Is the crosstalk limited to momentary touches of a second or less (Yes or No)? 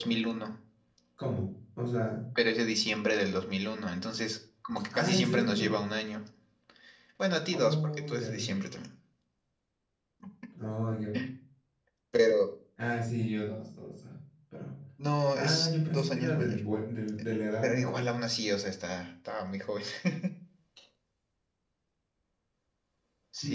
No